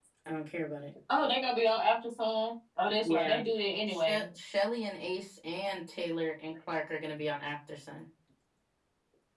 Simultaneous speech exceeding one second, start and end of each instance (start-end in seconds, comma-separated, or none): none